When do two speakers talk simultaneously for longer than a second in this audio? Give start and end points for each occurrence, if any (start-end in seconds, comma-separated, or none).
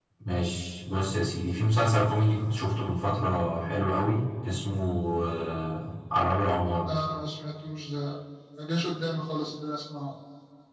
none